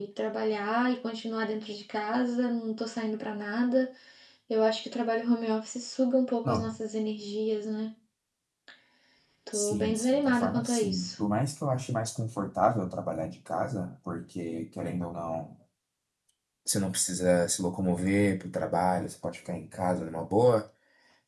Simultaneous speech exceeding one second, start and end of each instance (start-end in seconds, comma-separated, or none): 9.5-11.1